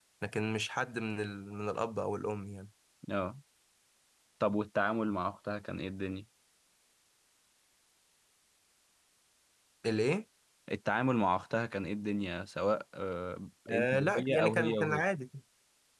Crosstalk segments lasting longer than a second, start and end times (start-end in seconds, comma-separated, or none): 13.7-15.0